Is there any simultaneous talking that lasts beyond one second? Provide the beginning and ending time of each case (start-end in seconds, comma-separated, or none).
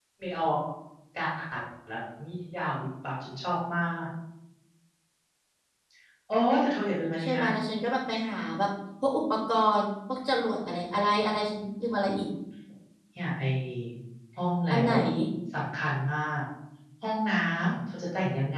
none